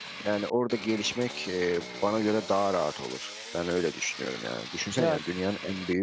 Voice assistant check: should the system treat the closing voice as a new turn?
No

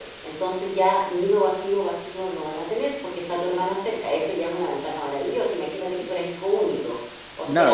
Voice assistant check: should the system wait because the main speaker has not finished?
No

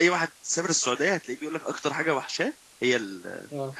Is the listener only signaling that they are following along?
No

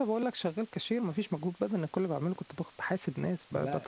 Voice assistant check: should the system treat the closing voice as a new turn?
No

